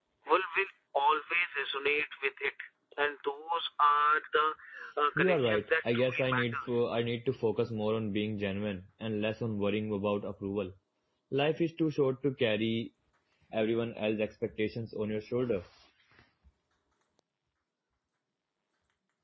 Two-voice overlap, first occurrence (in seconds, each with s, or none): 5.2 s